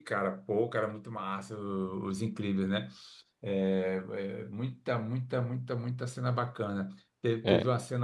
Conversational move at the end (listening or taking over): listening